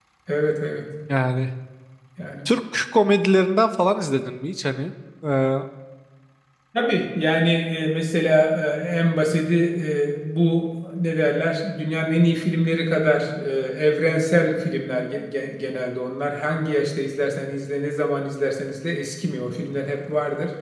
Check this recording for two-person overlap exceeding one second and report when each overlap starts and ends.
none

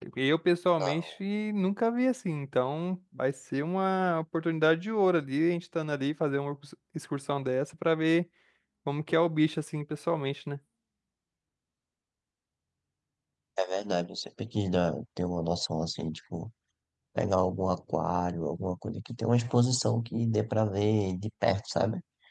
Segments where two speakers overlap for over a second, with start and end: none

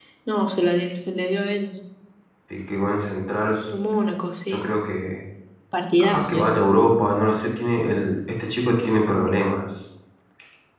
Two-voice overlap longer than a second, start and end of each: none

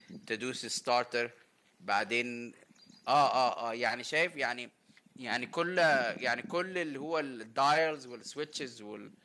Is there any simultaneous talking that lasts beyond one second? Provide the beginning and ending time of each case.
none

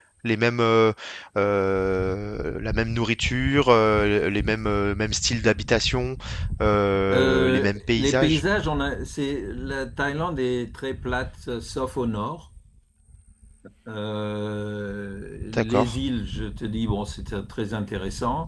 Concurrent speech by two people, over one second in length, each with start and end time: 7.1-8.4

